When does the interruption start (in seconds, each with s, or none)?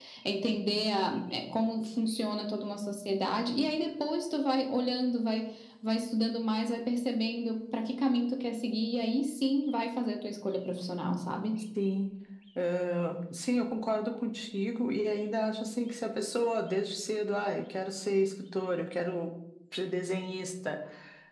none